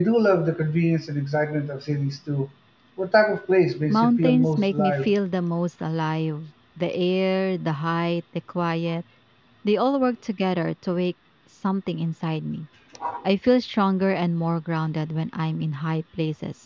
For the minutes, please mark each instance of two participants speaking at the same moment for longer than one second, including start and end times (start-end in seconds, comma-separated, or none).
3.9-5.1